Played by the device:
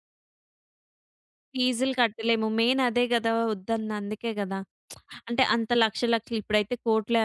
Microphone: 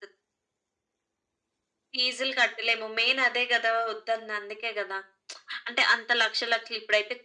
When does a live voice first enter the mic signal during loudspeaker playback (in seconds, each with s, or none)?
none